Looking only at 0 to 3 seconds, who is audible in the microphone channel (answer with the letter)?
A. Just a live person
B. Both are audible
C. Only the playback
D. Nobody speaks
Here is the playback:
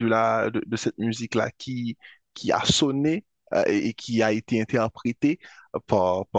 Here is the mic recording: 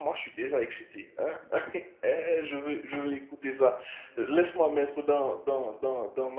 A